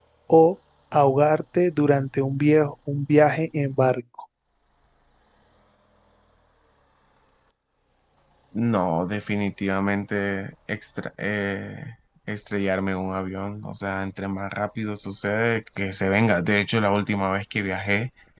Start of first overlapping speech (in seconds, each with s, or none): none